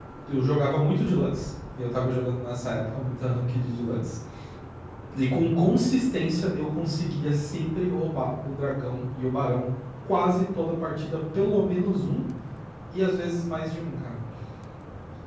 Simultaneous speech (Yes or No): No